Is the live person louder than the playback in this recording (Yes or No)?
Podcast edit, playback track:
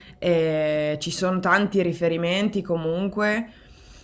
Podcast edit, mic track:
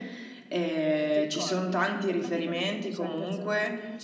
No